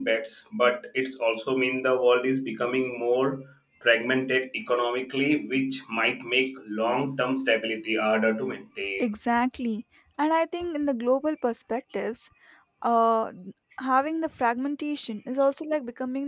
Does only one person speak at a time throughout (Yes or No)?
Yes